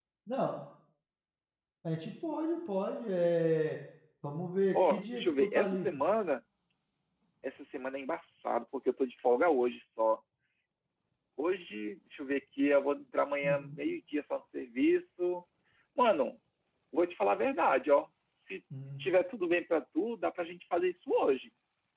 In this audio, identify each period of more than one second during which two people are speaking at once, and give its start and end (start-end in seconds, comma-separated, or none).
4.7-6.0